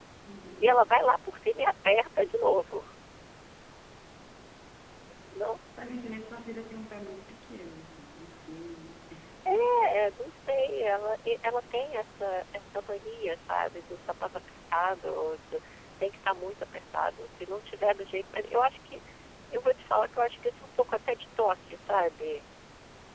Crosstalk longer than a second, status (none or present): none